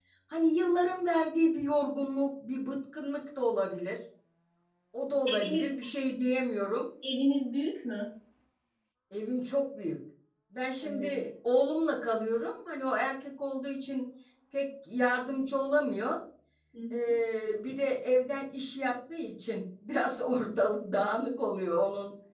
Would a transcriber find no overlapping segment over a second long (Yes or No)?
Yes